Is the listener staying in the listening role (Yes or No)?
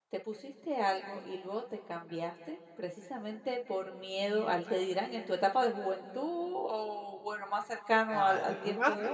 No